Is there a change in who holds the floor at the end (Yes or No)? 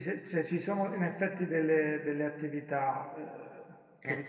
No